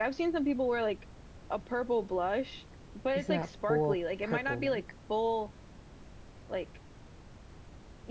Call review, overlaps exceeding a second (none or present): present